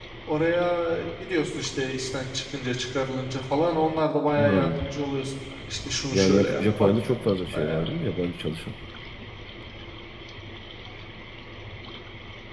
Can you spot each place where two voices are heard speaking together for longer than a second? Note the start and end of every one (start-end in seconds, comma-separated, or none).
6.1-7.9